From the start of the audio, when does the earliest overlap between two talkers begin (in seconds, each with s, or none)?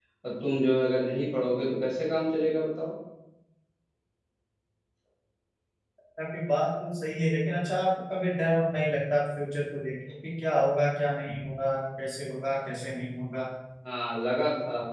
none